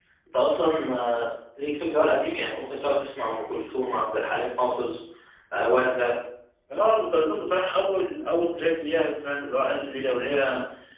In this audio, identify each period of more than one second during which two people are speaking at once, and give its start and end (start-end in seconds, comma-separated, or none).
none